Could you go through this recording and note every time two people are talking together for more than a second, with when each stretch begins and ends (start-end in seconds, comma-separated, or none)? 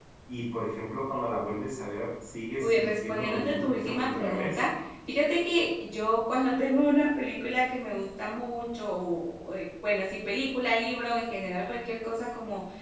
2.6-4.6